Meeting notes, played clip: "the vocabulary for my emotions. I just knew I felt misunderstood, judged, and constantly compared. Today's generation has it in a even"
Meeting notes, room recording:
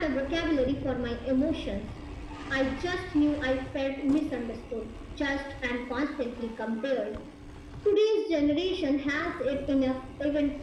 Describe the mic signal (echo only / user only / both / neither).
echo only